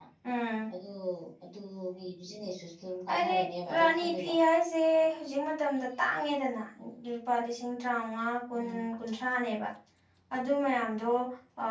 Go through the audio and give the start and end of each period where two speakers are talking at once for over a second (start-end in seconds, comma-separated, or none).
3.1-4.3